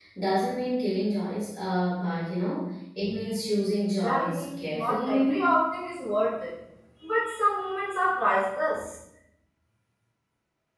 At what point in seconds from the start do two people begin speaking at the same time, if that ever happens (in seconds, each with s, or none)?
4.0 s